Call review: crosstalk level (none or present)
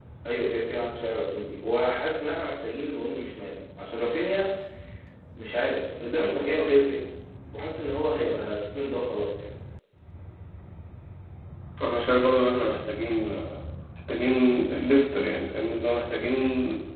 none